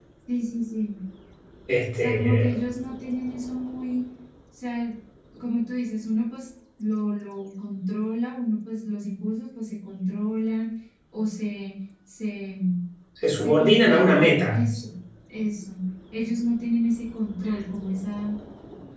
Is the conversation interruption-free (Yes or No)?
No